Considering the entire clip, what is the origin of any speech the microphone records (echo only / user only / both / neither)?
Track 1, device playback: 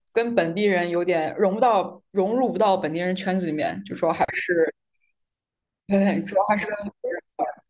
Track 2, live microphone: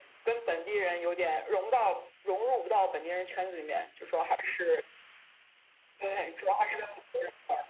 echo only